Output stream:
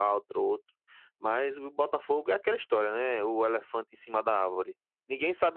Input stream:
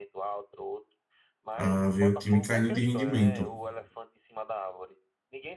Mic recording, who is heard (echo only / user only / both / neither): both